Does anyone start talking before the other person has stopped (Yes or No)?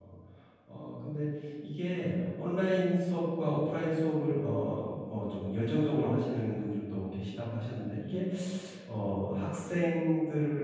No